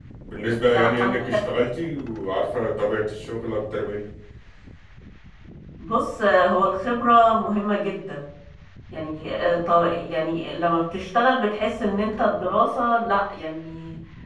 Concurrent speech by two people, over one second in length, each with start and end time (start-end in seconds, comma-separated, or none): none